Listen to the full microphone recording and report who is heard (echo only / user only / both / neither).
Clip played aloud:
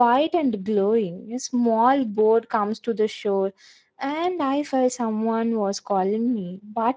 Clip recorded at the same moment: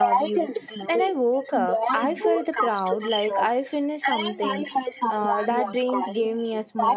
both